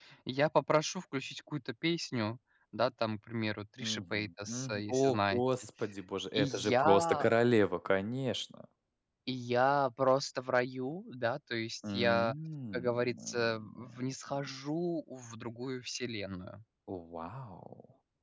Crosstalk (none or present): present